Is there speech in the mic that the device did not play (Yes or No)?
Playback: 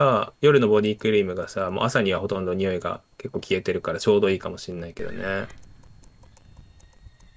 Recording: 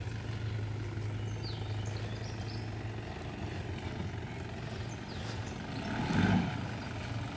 No